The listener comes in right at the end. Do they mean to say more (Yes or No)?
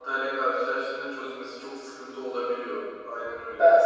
No